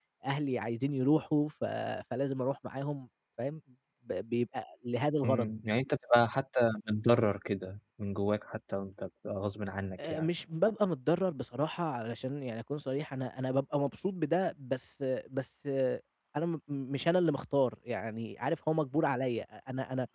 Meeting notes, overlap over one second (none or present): none